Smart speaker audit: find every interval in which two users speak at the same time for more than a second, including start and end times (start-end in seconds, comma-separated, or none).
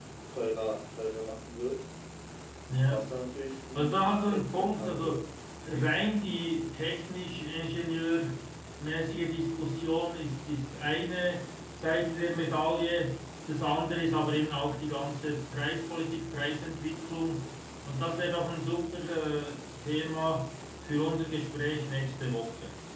3.8-5.2